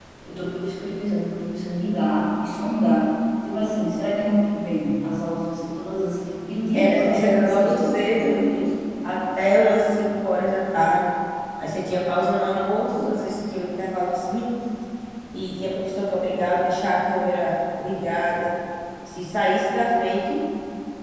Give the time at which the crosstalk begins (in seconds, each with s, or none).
6.7 s